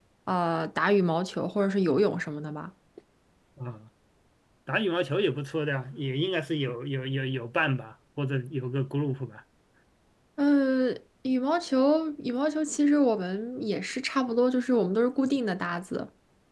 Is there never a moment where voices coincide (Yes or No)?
Yes